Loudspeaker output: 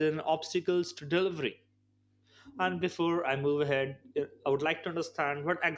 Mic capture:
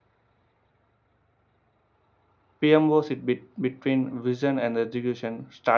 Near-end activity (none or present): present